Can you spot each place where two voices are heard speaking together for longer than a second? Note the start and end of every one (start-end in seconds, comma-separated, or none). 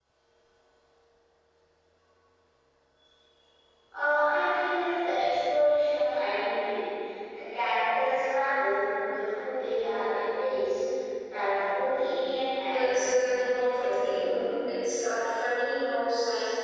12.6-14.4